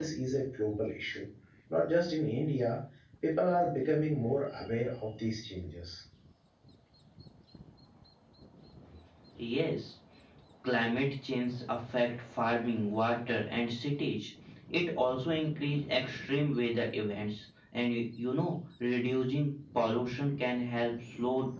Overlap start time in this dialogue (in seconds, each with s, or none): none